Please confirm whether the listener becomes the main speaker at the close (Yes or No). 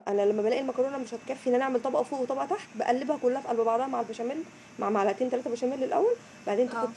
No